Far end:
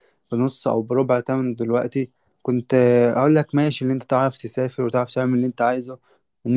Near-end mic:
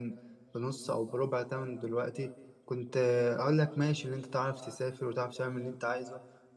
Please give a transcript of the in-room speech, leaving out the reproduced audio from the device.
none

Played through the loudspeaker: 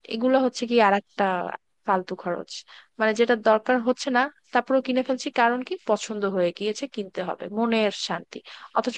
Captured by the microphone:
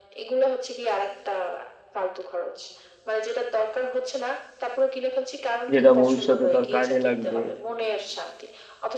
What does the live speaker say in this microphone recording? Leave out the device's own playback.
যেটা ভবিষ্যতে তার কাজে লাগবে

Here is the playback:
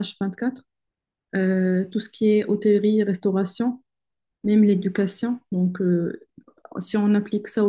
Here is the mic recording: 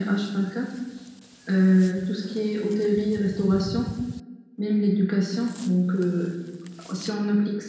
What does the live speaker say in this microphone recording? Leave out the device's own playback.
none

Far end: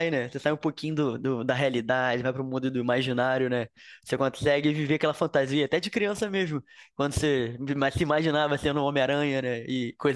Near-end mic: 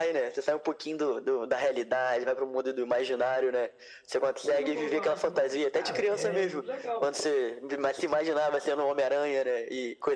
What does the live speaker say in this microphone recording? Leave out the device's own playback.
Você nunca ouviu falar isso, não? Cara, é muito legal.

